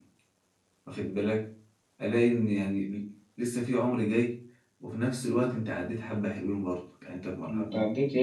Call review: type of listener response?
taking over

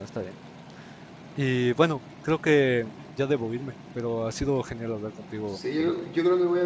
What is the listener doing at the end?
taking over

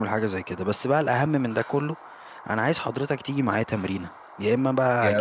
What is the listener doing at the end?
listening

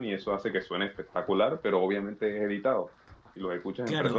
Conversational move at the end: taking over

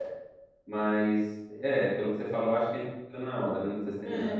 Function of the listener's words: taking over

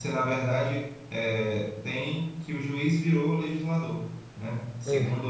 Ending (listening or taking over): listening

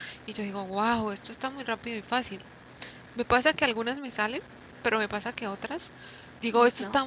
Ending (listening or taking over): listening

